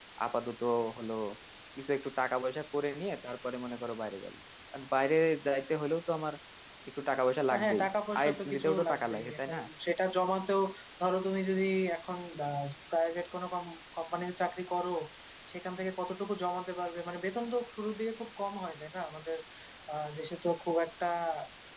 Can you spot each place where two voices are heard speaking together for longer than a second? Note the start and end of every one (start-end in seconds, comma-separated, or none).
7.5-9.6